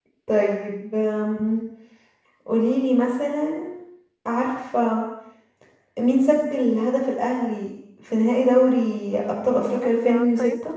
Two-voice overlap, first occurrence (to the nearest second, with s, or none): 9 s